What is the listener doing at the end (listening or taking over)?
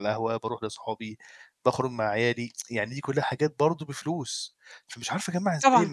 listening